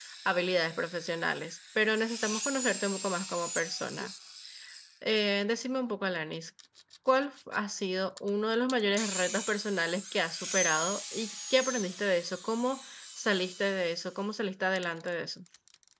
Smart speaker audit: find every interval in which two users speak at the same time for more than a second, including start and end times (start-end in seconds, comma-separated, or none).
none